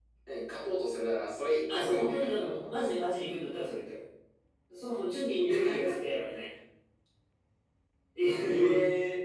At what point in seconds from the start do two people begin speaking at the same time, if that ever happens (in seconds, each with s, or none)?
1.7 s